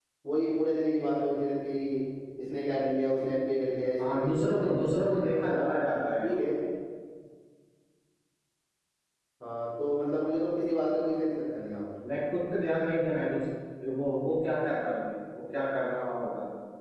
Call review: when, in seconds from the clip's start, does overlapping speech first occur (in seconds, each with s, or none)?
4.0 s